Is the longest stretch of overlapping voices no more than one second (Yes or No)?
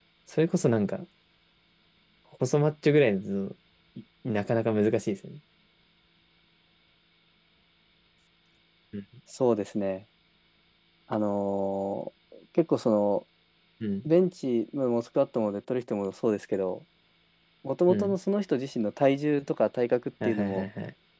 Yes